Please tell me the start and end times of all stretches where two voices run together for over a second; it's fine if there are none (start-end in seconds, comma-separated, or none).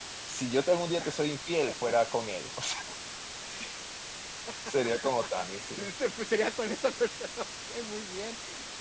none